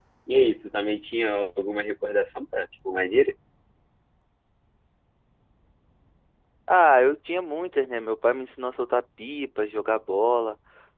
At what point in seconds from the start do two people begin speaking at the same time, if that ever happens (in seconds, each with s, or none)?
none